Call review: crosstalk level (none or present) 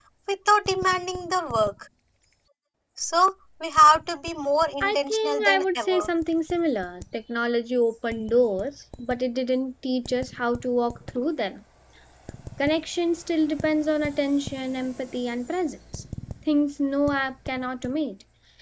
present